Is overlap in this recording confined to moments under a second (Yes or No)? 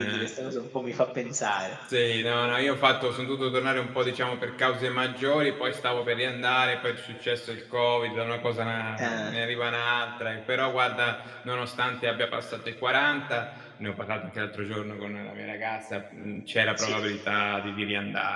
Yes